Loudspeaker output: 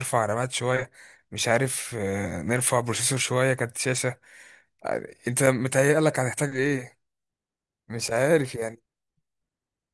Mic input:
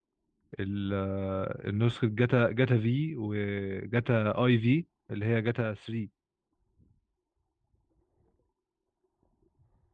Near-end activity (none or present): present